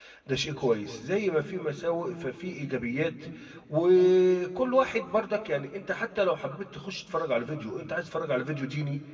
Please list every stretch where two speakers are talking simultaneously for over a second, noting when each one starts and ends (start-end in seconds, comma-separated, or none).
none